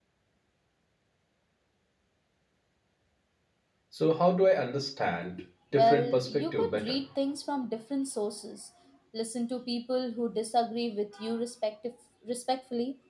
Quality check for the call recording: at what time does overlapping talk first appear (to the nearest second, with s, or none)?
6 s